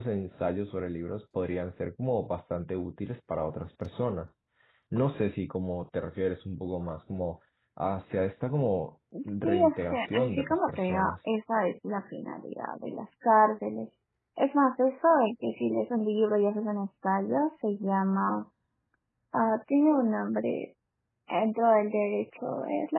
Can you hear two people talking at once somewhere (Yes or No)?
Yes